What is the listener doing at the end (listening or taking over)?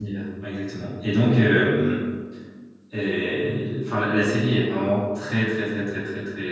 listening